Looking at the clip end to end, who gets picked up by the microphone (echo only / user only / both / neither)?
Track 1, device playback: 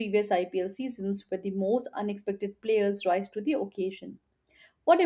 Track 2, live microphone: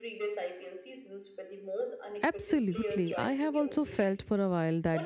both